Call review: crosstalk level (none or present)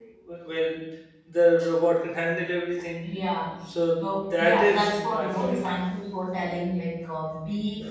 present